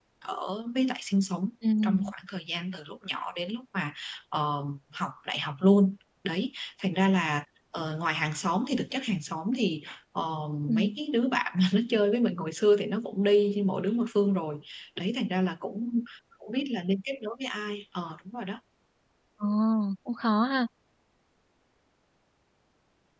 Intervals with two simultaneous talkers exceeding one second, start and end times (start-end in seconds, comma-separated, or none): none